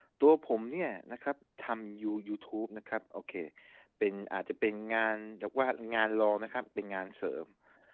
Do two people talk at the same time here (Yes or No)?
No